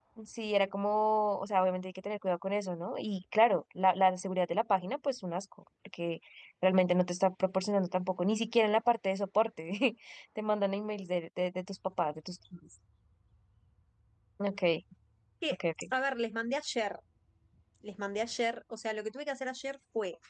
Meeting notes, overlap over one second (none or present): none